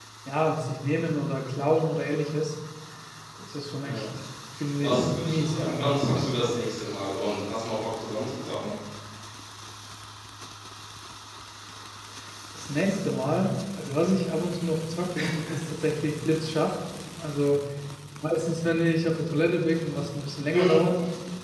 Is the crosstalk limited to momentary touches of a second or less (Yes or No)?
No